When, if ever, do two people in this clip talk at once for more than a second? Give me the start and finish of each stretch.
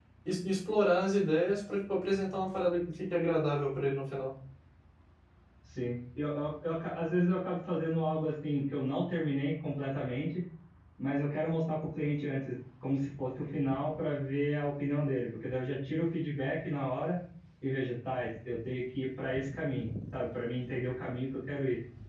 none

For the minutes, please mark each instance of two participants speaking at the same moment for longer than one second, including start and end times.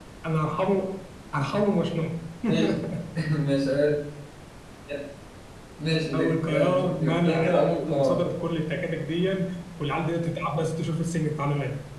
6.1-8.2

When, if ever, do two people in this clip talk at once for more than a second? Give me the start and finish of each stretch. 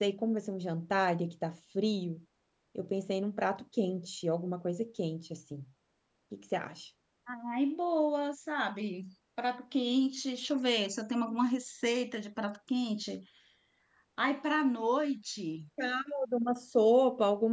none

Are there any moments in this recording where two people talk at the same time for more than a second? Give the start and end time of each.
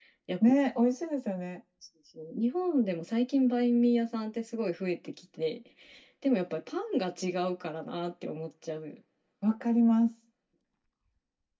none

